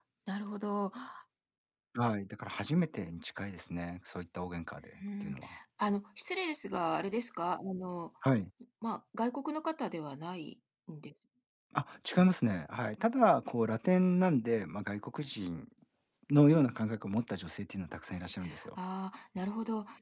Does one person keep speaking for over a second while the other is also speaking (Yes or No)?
No